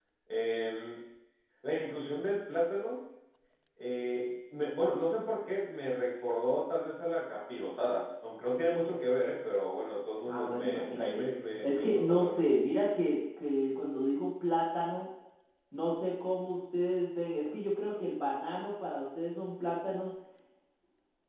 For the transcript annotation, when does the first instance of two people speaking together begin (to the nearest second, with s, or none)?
10 s